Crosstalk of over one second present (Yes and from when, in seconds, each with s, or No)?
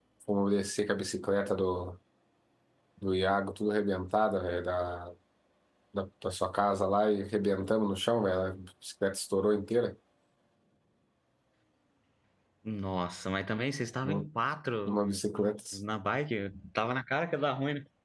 No